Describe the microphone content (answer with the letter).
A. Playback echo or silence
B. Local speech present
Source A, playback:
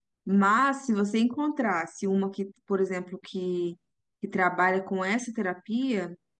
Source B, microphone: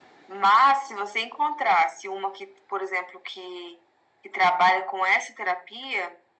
A